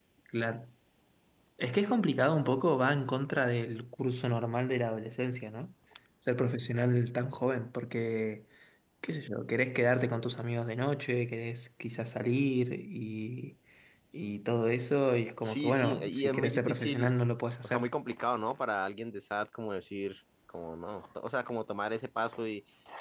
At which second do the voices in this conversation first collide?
15 s

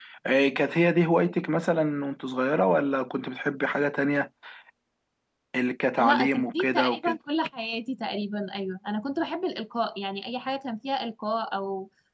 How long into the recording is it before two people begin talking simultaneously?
6 s

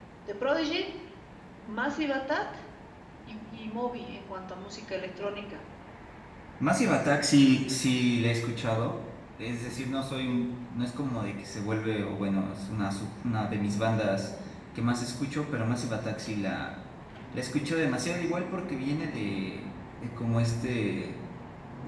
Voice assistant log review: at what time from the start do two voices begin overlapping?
none

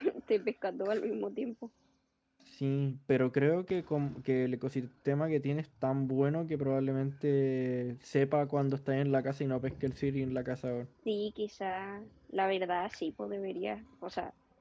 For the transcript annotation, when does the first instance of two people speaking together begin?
none

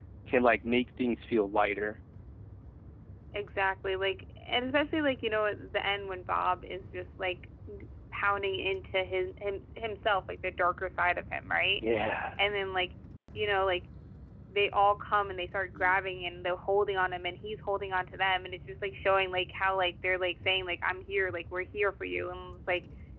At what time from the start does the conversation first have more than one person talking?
none

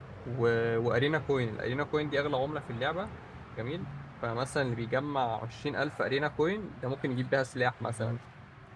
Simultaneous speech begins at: none

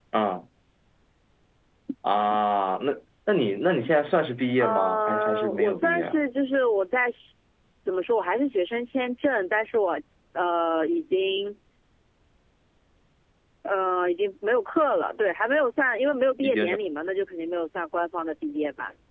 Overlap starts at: 5 s

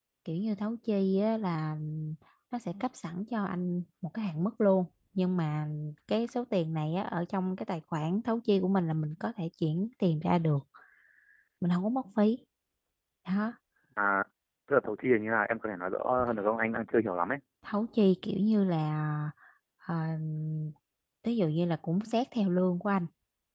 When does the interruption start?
none

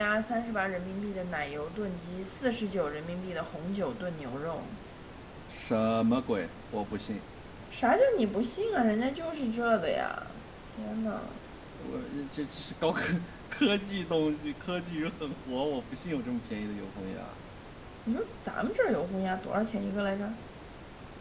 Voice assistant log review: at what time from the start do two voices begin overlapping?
none

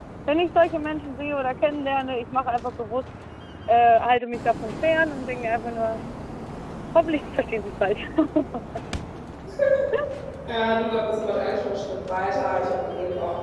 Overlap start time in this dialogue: none

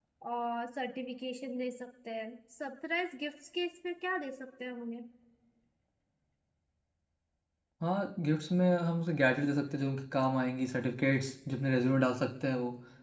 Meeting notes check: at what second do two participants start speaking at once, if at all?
none

